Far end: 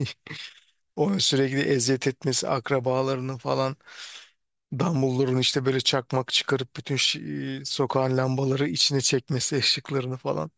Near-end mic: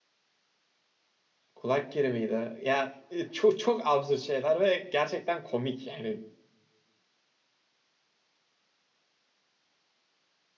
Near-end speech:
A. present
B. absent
A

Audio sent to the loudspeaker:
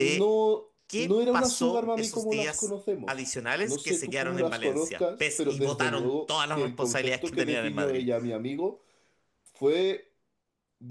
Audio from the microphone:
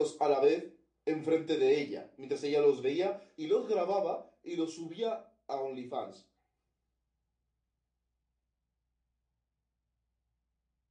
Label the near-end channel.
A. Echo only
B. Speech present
B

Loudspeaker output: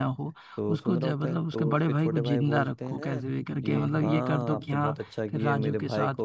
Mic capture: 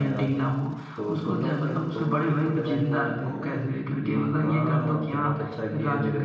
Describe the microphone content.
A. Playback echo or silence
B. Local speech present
A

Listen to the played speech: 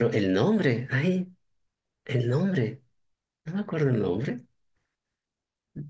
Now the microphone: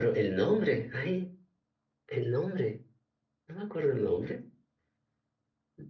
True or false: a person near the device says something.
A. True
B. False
B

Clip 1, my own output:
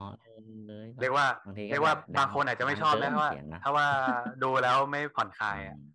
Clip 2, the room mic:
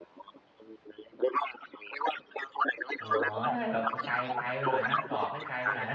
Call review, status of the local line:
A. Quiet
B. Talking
B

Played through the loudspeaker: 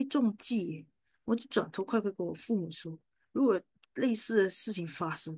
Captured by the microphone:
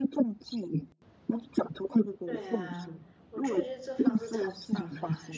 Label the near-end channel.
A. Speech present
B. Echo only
A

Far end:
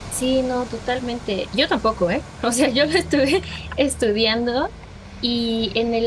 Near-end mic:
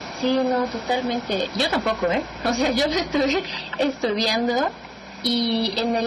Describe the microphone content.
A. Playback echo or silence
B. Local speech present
A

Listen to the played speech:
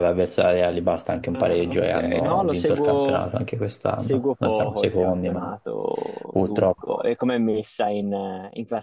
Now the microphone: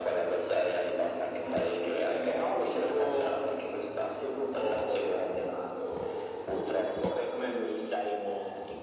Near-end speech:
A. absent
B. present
A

